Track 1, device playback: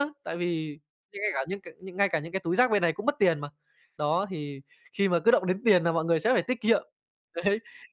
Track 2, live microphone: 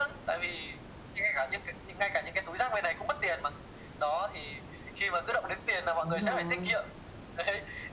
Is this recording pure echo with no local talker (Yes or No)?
No